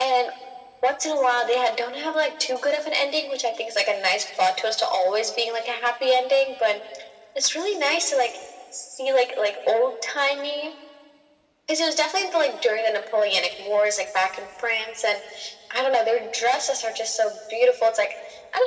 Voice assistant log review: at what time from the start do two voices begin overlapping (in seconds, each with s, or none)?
none